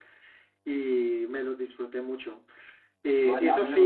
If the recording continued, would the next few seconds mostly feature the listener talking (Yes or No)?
Yes